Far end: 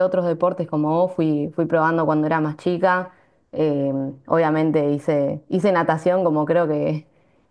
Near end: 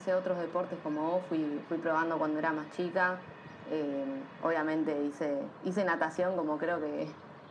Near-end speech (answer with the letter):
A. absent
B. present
A